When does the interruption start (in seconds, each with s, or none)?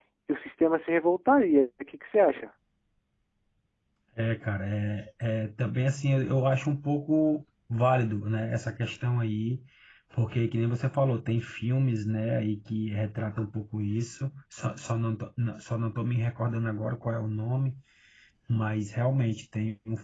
none